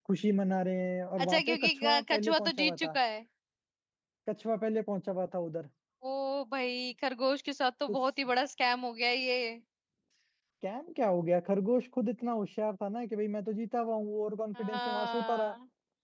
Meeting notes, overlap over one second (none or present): present